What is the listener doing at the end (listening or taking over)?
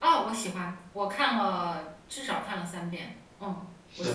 taking over